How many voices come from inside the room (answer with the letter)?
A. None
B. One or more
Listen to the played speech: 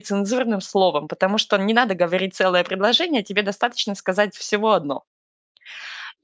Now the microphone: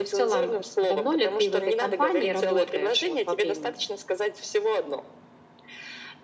B